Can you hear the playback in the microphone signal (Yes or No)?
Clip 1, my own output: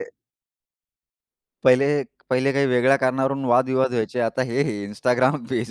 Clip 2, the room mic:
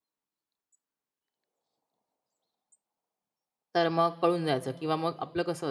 No